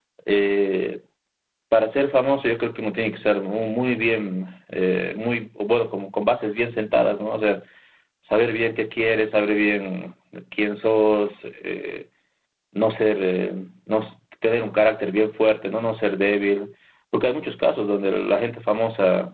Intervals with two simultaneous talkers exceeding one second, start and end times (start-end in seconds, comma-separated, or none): none